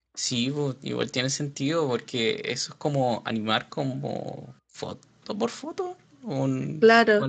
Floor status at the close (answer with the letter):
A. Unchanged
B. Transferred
B